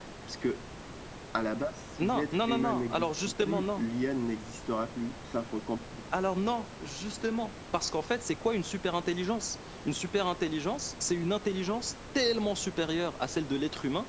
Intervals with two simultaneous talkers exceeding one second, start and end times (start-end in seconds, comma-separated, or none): 2.1-3.8